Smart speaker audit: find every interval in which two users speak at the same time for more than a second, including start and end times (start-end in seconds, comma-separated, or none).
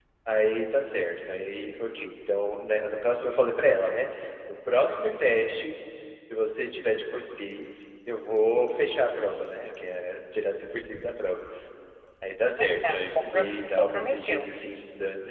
12.6-14.5